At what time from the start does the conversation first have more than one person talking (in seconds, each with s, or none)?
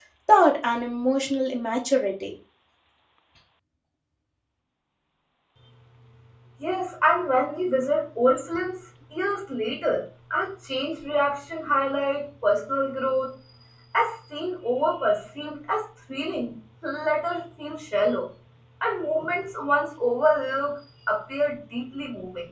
none